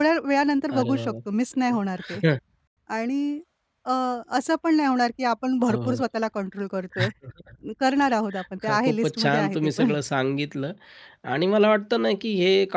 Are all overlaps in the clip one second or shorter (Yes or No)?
No